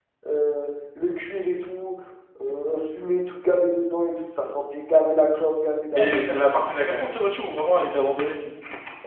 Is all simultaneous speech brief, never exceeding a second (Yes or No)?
Yes